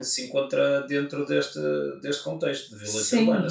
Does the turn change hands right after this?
Yes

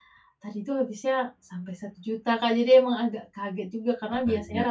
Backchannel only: Yes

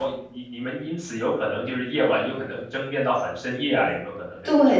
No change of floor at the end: No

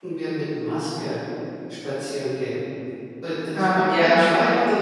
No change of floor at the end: Yes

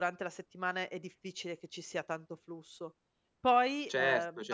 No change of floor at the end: No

